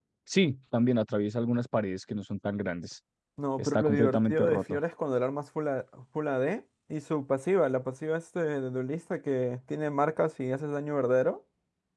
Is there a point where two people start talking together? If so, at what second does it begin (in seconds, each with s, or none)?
3.6 s